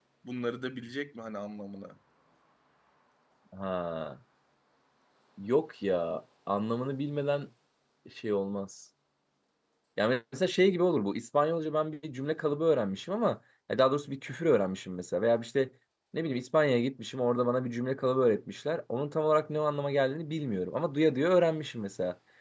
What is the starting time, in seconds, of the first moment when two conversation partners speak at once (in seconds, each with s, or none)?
none